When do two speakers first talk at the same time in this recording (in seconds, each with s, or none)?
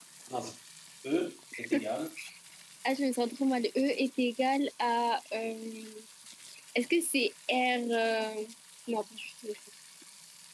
none